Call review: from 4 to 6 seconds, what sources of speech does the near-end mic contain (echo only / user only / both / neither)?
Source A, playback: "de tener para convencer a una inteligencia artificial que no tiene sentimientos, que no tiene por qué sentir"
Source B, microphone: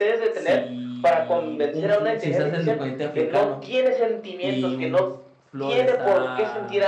both